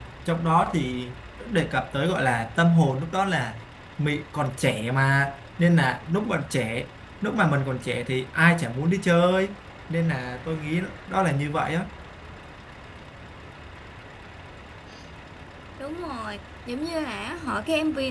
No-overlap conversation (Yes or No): Yes